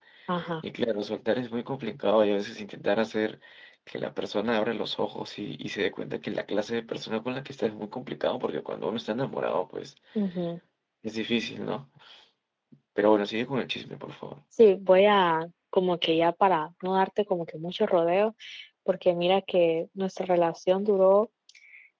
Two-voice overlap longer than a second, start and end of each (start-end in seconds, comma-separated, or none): none